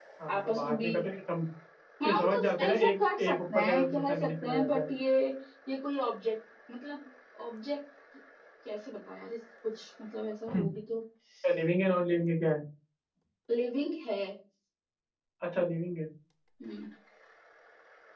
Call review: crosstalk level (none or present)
present